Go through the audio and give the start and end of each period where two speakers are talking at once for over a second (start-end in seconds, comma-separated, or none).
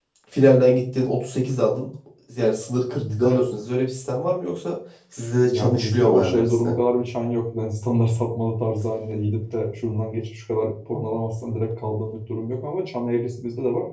5.5-6.8